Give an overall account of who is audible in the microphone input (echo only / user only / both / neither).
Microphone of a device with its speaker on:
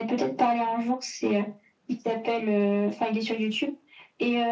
echo only